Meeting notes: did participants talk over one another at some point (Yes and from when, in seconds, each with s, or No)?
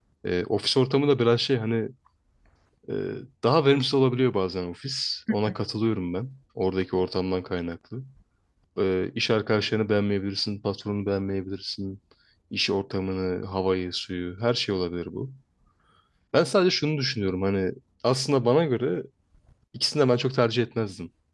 No